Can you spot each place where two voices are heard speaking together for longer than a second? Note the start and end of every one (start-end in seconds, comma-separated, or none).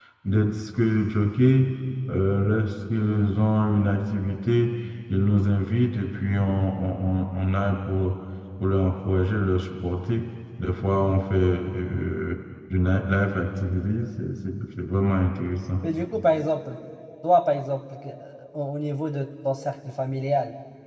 none